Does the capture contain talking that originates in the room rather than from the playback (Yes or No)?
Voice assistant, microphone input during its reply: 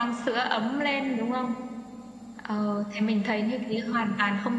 No